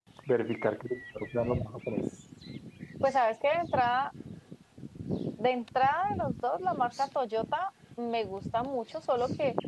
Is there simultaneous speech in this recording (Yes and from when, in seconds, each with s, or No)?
No